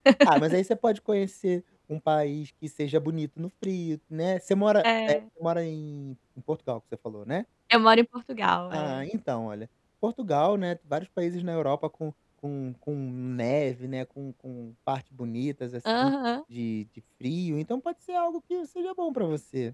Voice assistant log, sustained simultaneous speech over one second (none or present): none